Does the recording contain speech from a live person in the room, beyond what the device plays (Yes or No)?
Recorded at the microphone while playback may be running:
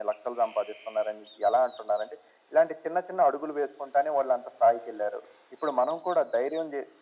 No